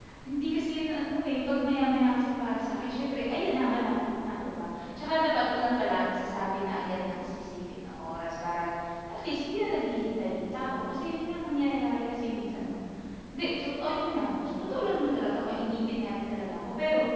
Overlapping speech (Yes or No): No